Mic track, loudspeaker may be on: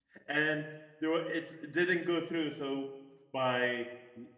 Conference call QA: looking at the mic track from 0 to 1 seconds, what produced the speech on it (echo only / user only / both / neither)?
user only